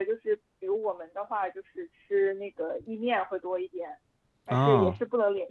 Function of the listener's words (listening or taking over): listening